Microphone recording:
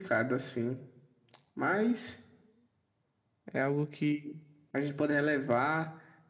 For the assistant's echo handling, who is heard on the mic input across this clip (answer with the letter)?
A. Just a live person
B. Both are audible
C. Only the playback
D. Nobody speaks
C